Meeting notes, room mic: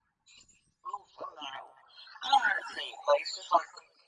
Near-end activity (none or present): none